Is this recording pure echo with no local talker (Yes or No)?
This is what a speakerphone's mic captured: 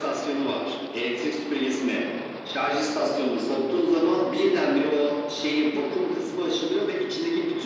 Yes